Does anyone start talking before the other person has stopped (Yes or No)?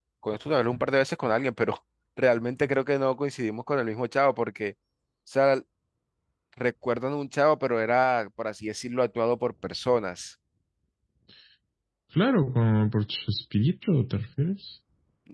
No